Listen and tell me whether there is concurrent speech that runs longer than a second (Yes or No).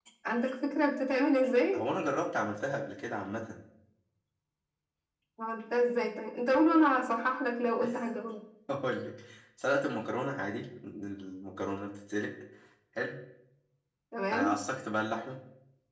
No